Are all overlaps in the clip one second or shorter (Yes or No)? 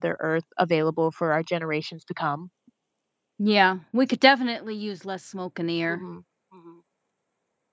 Yes